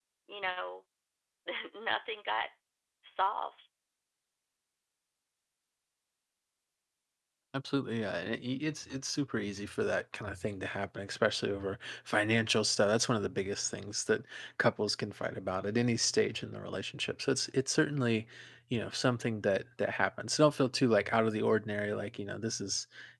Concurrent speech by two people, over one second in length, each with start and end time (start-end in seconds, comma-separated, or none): none